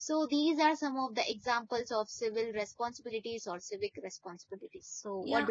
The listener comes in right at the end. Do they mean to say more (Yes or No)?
Yes